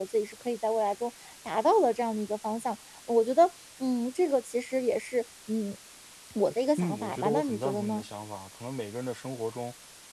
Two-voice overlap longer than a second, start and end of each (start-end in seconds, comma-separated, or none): 6.8-8.0